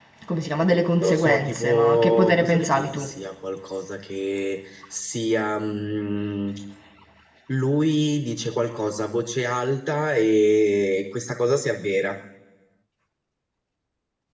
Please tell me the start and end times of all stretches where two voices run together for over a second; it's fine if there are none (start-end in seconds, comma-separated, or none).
1.0-3.1